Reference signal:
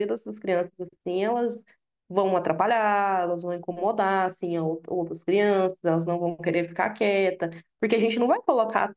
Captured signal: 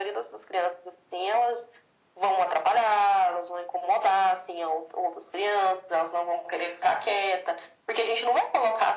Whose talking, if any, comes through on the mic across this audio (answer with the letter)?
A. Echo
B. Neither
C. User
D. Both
A